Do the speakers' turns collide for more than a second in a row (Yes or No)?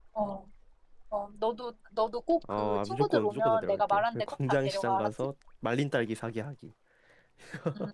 Yes